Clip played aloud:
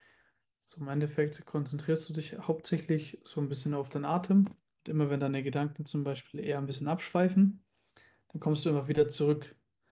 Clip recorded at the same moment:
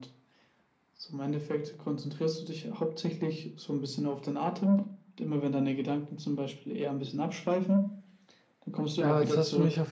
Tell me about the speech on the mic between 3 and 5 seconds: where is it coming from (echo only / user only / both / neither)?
echo only